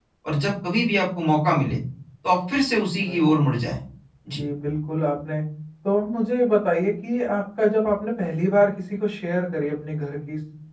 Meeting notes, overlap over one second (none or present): none